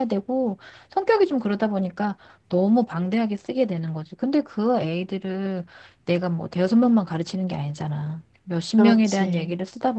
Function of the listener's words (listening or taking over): listening